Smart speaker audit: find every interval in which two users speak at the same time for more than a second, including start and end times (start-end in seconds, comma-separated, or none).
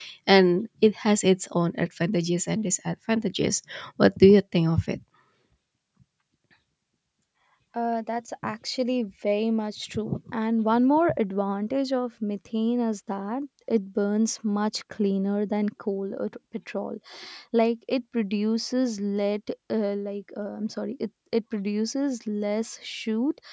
none